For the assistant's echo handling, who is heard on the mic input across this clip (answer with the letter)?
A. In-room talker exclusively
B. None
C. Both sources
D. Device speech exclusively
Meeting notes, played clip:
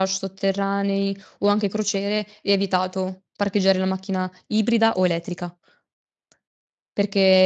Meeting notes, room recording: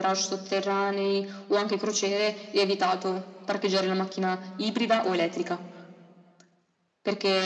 D